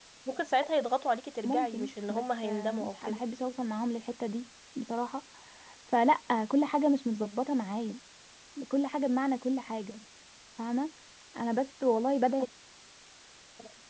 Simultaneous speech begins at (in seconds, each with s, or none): 1.4 s